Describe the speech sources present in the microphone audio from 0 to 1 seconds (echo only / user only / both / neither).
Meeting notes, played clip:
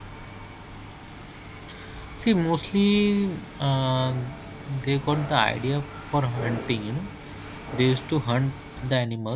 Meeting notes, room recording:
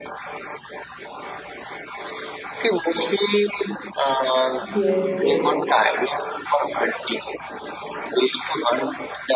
neither